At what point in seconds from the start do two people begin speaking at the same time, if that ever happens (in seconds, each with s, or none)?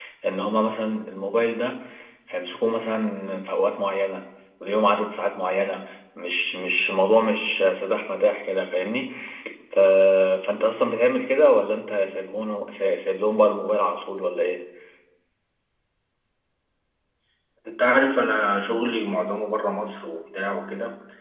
none